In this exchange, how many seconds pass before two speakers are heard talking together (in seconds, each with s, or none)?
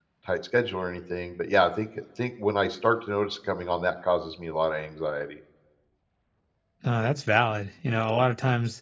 none